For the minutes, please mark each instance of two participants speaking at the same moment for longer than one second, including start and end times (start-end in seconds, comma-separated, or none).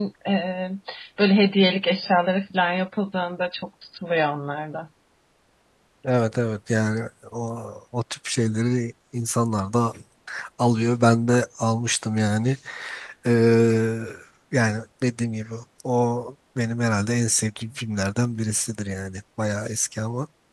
none